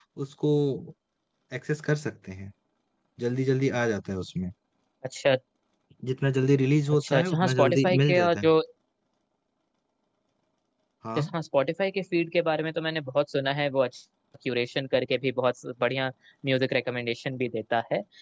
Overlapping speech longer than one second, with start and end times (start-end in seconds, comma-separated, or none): 6.9-8.5